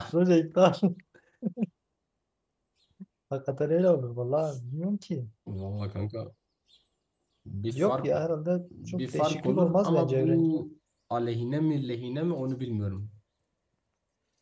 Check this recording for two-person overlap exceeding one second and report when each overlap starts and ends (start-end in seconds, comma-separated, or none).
8.9-10.6